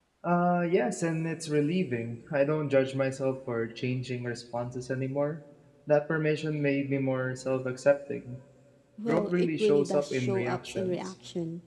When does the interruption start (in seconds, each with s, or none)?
9.0 s